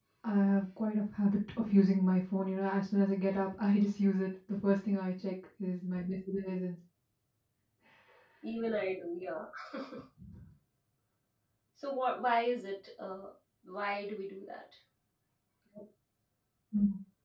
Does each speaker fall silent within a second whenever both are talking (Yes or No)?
Yes